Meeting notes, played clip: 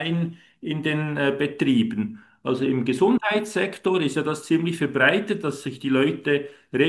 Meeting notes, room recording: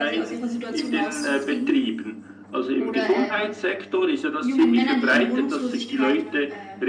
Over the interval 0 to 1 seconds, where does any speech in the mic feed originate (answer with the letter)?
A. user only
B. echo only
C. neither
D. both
D